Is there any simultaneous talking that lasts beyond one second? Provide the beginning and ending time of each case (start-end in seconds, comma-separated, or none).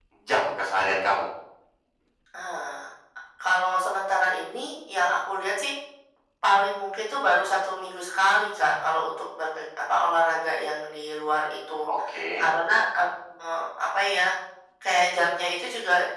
none